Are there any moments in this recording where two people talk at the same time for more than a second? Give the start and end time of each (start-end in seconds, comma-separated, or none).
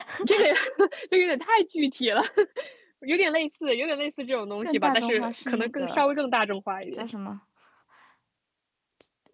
4.6-6.0